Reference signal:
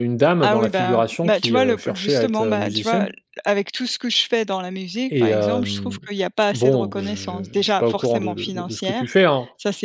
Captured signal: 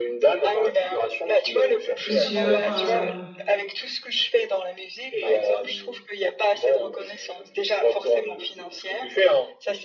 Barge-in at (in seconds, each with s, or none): 1.9 s